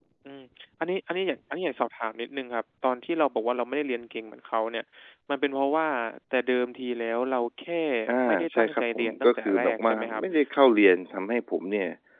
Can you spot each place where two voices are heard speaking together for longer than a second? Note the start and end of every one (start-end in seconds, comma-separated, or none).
8.2-10.2